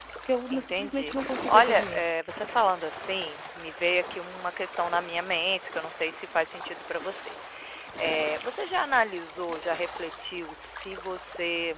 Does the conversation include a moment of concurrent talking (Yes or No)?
Yes